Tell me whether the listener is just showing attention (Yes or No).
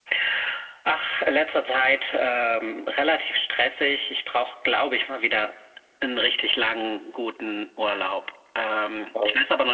Yes